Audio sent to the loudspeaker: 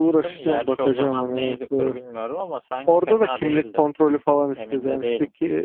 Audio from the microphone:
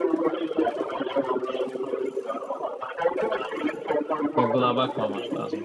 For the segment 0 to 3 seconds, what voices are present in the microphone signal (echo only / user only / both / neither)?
echo only